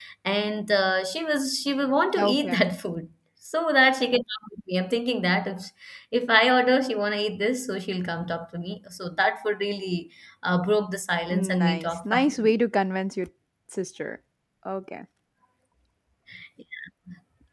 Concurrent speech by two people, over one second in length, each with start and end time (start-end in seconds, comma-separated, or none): 11.3-12.5